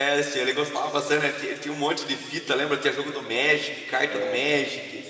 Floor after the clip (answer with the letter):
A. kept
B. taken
B